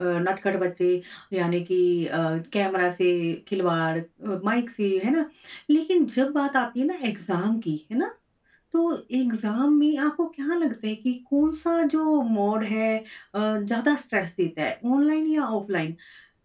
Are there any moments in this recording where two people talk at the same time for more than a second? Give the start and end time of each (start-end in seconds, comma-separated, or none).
none